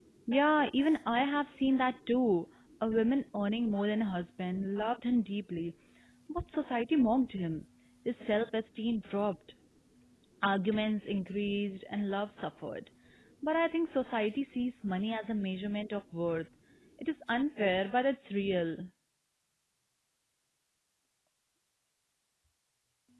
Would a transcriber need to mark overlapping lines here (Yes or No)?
No